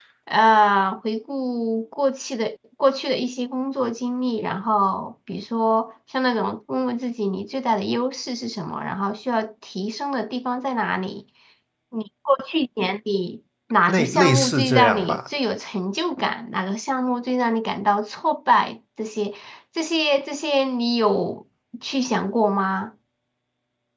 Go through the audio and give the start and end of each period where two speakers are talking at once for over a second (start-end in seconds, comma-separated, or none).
13.9-15.2